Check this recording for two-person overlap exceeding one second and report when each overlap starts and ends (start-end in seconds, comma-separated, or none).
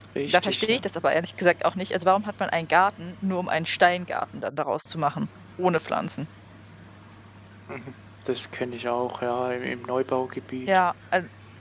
none